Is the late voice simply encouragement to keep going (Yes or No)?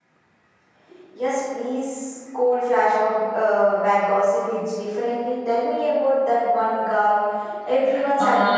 No